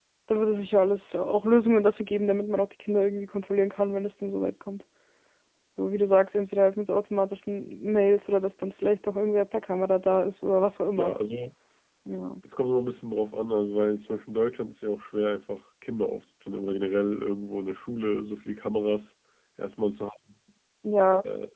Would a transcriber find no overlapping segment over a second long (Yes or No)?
Yes